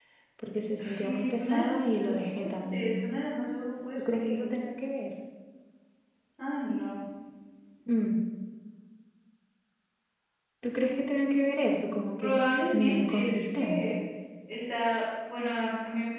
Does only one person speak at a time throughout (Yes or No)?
No